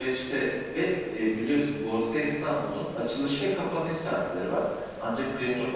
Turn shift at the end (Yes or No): No